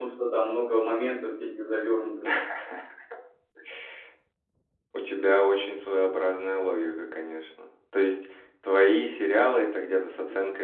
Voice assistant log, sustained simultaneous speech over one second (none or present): none